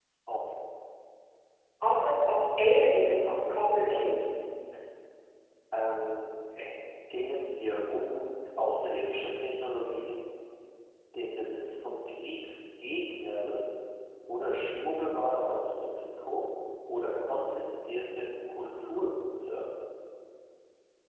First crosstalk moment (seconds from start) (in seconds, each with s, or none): 2.7 s